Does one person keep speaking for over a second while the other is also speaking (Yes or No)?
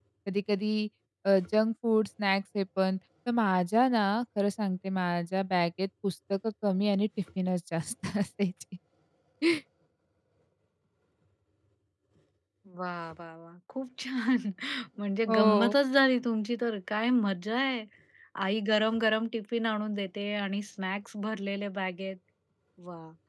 No